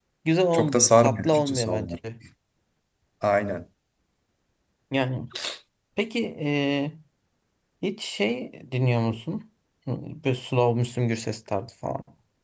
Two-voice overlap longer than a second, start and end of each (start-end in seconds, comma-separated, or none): 0.5-2.0